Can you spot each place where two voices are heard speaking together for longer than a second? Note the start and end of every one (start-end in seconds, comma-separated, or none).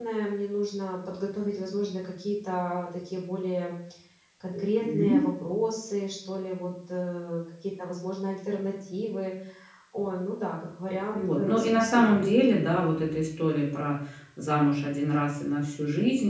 11.1-12.8